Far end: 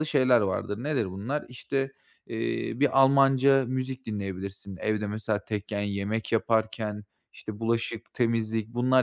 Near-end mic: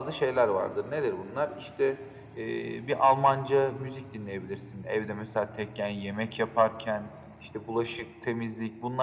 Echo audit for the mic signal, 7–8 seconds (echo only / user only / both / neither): echo only